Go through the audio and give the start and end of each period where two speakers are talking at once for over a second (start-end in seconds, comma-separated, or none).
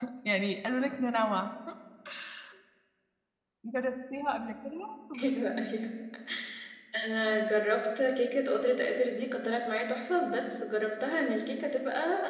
none